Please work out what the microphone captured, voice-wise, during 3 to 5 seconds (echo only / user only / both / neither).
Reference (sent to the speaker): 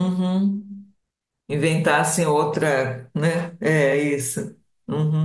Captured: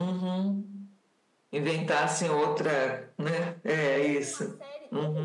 both